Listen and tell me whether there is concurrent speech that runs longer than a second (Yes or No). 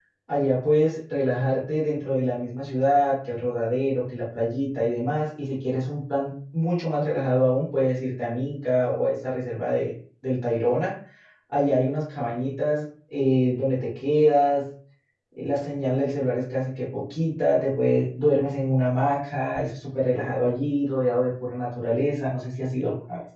No